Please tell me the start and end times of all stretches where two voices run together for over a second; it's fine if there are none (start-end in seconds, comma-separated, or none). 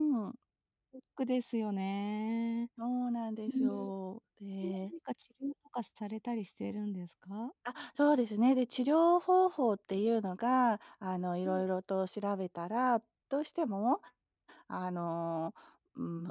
none